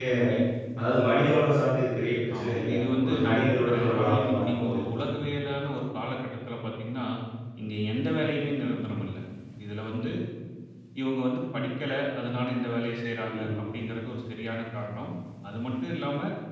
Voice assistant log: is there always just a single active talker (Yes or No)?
No